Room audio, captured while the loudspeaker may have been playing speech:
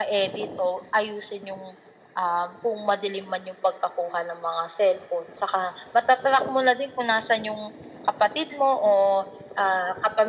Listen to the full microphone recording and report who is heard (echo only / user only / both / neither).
echo only